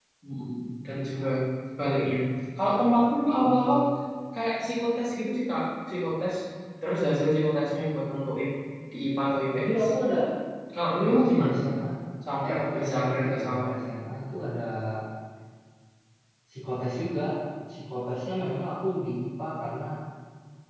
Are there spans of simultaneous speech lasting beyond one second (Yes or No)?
Yes